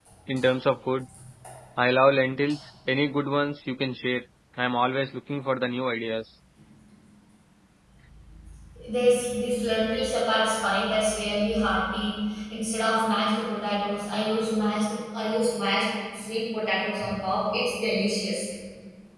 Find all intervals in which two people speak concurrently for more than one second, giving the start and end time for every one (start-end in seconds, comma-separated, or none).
none